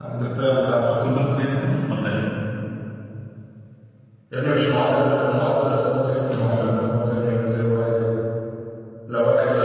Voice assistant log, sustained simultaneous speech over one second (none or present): none